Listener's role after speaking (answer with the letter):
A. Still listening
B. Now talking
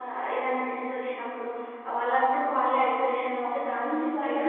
B